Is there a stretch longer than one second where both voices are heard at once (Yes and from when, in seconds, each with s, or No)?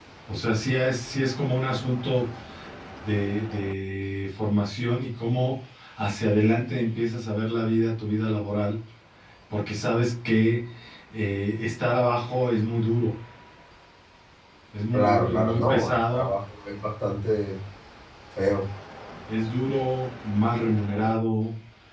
Yes, from 14.9 s